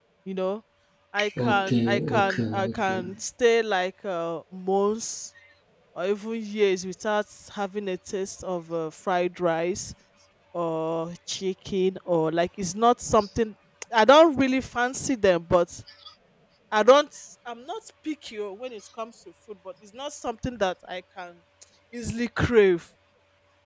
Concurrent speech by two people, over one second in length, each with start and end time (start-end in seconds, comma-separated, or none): 1.5-3.0